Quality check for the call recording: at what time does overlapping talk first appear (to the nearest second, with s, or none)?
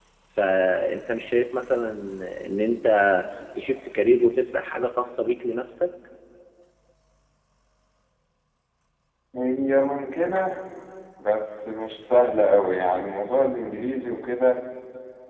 none